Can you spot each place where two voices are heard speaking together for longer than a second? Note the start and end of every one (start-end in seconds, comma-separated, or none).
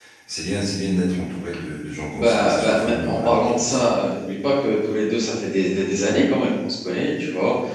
2.1-3.9